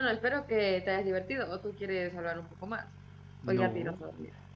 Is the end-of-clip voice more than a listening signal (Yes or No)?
Yes